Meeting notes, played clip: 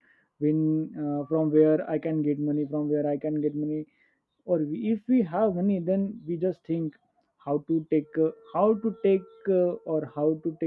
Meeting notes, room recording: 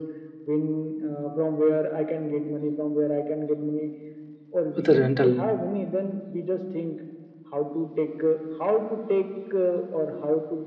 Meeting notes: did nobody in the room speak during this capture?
No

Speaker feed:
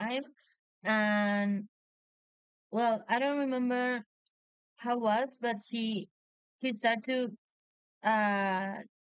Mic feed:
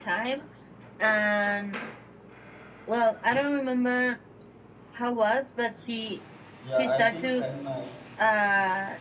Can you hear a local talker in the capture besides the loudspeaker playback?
Yes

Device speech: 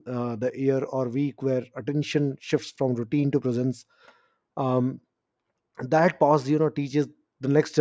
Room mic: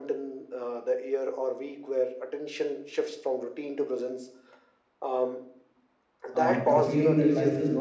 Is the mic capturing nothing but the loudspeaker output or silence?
No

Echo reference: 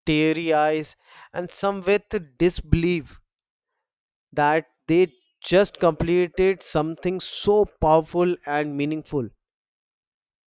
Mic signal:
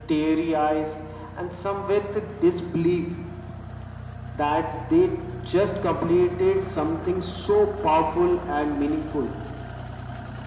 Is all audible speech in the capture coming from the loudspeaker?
Yes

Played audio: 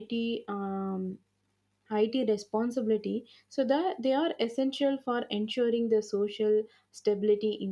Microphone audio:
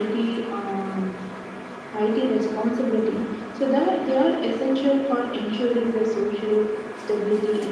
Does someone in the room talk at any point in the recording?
No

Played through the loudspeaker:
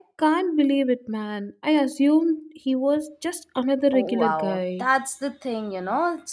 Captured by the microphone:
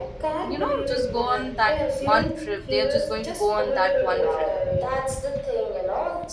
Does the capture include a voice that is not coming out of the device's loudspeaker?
Yes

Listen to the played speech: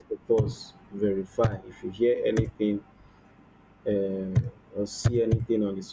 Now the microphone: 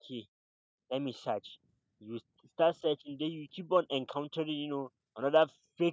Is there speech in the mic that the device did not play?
Yes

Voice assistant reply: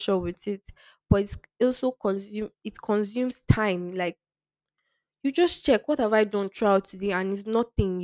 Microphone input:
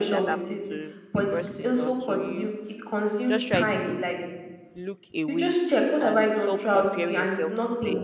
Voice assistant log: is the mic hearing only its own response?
No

